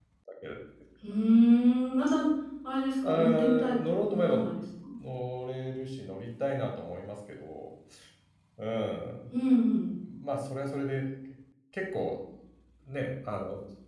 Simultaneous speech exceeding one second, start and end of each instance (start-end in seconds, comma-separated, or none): 3.1-4.4